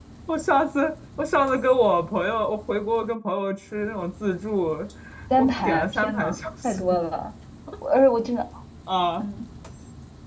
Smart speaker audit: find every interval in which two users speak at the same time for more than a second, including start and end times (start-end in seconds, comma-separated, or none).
5.4-6.8